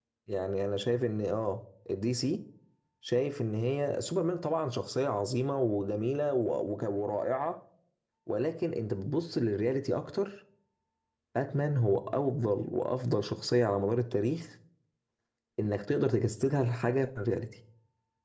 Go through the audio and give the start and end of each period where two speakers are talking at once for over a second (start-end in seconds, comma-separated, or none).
none